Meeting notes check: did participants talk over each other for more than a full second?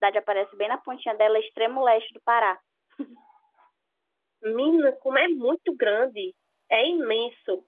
No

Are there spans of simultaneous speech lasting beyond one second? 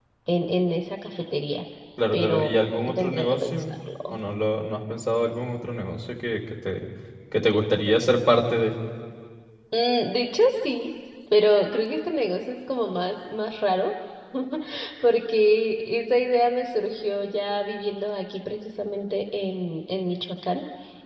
Yes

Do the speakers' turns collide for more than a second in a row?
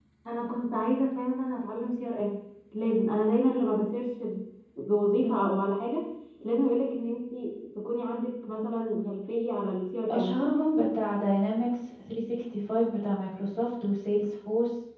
No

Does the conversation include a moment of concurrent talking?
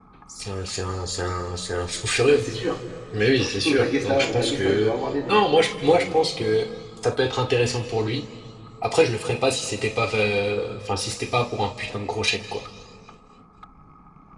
Yes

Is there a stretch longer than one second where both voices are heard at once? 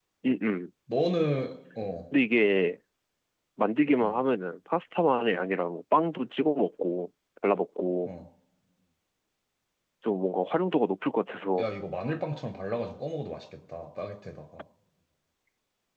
No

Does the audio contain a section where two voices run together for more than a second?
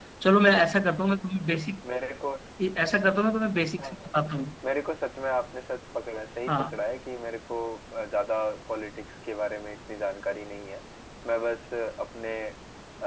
No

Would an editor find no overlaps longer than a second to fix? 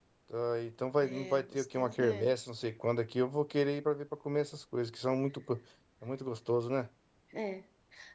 No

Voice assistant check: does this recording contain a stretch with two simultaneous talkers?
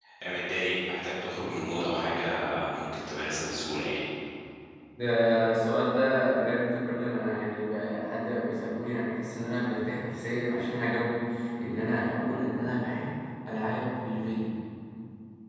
No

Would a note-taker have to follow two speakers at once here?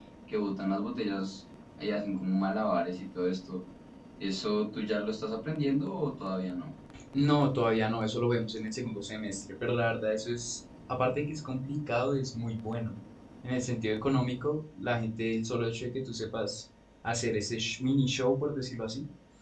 No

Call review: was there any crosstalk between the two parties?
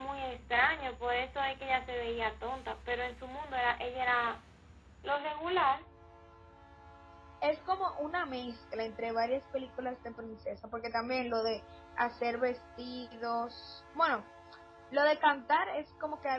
No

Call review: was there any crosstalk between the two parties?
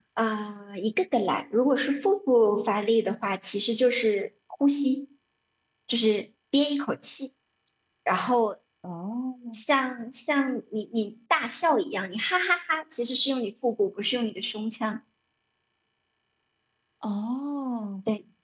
No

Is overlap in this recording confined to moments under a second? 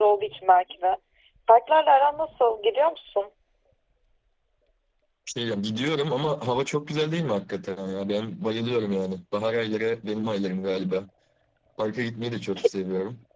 Yes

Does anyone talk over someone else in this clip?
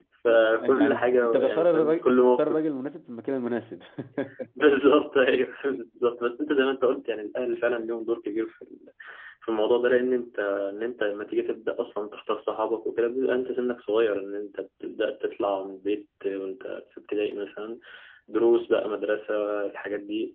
Yes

